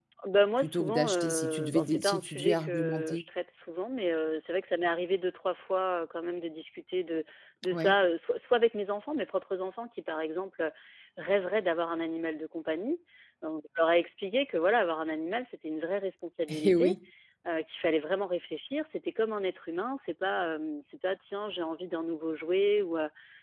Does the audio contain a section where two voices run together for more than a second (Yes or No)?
Yes